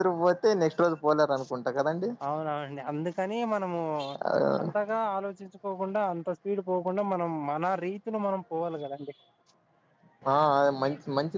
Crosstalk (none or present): none